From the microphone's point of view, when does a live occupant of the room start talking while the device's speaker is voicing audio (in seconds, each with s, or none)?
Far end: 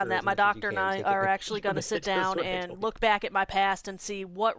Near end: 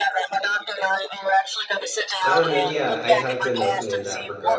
2.2 s